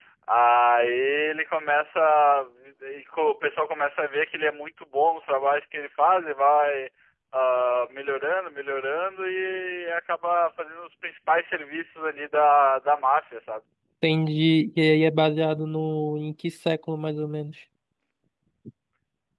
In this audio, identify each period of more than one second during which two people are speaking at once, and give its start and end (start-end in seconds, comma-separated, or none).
none